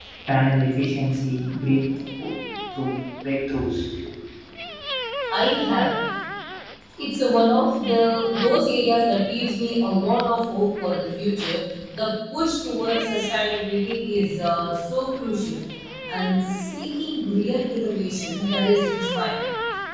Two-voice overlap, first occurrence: none

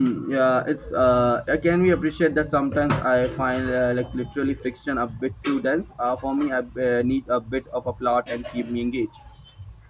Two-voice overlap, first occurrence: none

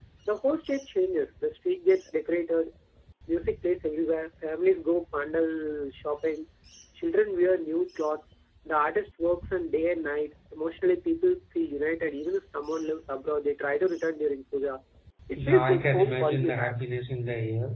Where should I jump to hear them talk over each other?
15.4 s

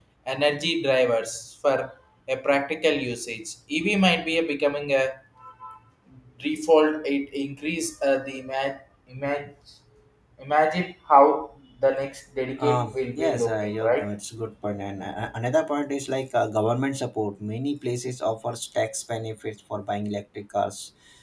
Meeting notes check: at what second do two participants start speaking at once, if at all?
12.6 s

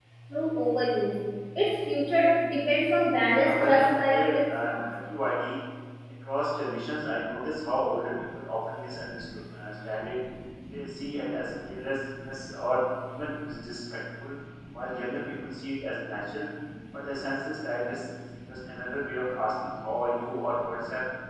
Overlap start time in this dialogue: 3.3 s

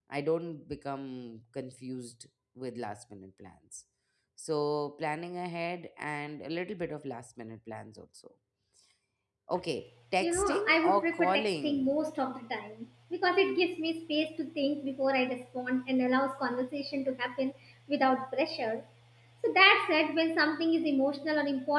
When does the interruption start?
10.2 s

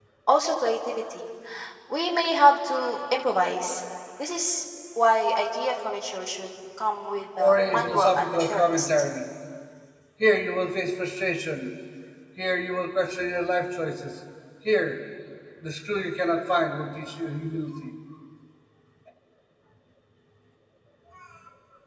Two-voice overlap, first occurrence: 7.4 s

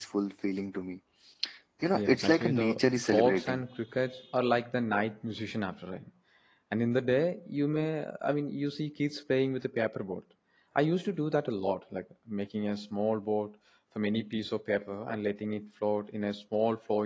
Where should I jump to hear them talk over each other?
1.9 s

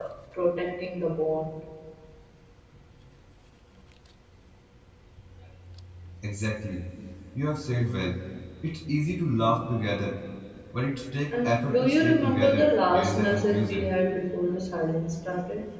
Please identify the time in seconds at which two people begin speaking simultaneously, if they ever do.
11.3 s

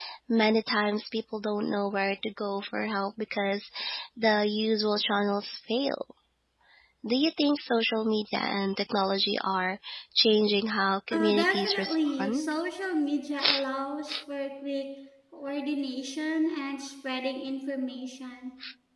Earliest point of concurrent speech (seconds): 11.1 s

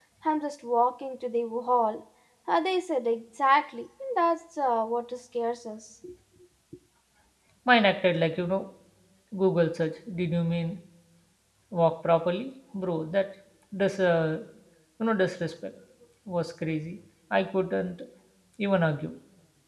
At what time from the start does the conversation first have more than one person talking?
none

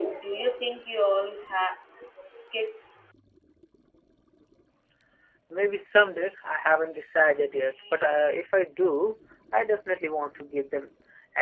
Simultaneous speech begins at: none

